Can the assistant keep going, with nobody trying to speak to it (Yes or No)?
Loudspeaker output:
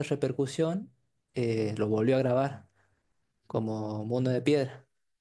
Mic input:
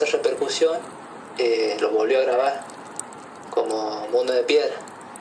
Yes